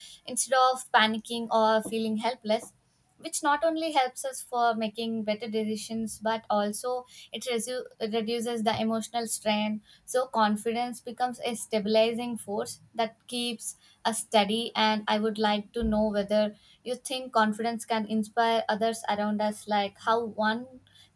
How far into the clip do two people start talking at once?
none

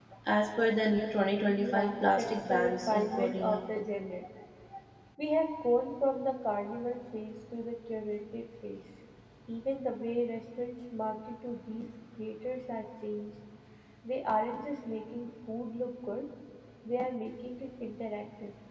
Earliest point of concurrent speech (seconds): 1.5 s

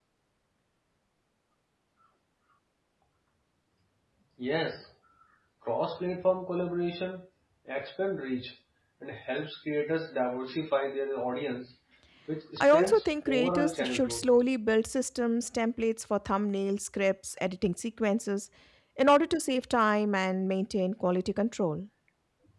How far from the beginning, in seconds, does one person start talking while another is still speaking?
12.6 s

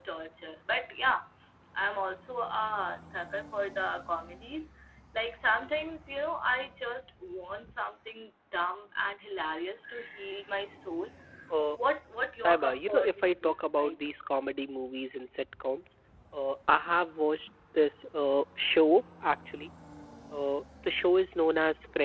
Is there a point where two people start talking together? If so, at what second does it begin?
12.4 s

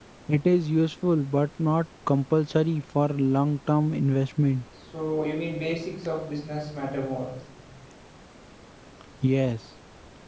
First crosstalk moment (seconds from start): none

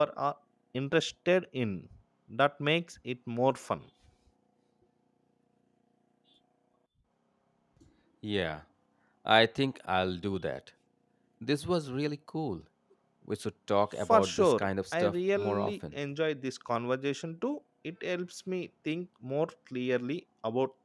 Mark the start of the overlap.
14.1 s

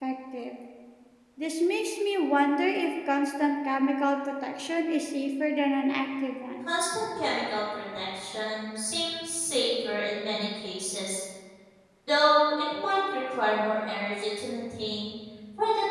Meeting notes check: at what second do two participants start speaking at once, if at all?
none

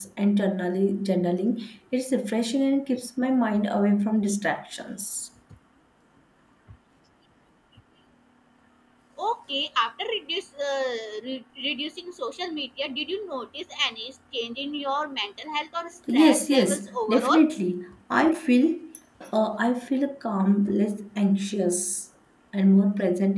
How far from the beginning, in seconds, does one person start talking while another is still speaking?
16.1 s

